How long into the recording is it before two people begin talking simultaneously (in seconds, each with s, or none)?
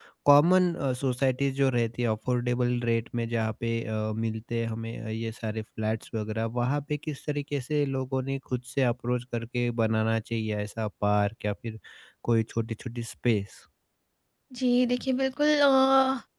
none